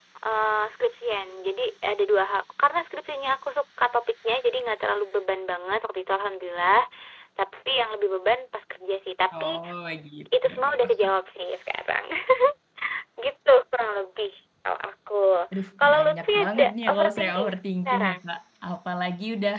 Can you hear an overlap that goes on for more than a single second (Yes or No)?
Yes